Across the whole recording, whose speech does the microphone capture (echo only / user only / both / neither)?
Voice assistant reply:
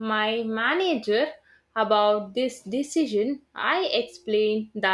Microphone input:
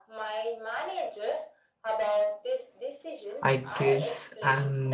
both